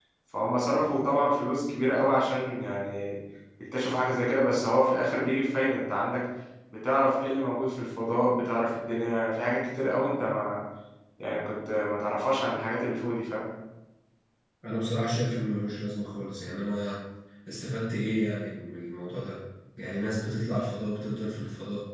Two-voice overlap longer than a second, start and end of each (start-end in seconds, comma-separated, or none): none